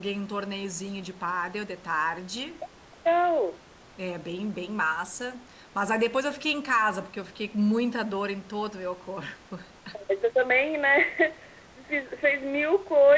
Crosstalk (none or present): none